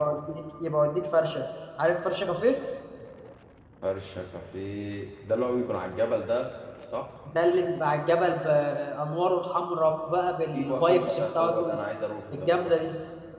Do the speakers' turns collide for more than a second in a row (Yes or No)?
Yes